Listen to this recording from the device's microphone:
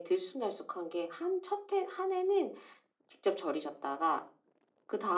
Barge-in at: none

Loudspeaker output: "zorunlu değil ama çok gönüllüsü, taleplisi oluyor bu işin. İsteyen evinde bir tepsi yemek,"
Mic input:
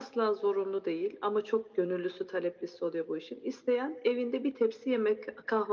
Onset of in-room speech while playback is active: none

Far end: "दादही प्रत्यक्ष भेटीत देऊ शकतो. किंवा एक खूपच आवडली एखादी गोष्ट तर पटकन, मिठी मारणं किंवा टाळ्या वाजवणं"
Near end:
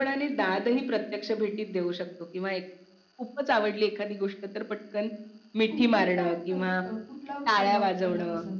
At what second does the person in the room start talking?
5.7 s

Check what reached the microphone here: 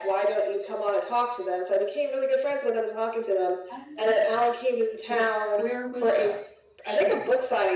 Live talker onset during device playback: 3.7 s

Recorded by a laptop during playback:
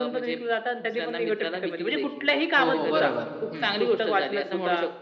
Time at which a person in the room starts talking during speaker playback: 2.6 s

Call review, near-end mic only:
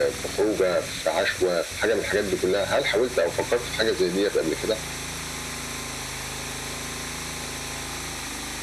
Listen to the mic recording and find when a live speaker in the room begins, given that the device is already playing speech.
none

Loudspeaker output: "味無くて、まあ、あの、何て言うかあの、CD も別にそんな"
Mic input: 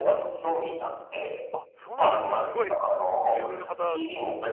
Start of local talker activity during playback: 1.5 s

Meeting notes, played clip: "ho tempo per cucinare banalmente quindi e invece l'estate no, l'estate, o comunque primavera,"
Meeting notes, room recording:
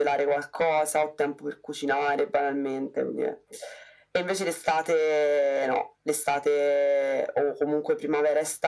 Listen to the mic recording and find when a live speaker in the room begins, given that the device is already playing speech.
none

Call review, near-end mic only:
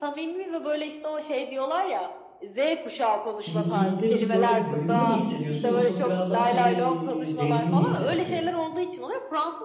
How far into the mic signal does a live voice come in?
3.4 s

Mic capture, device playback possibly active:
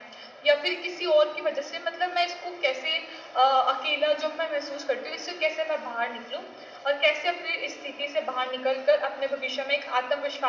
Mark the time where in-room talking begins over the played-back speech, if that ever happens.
none

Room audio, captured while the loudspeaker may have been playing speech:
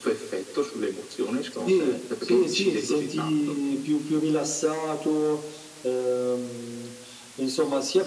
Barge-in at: none

